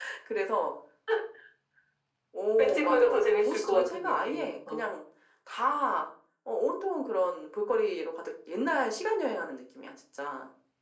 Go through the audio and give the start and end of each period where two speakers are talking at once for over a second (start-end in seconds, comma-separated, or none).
2.6-4.9